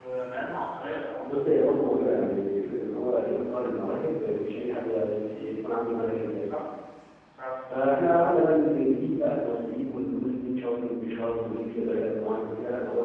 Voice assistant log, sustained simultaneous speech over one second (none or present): none